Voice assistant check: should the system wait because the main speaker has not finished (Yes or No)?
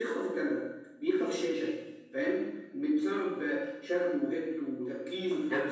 No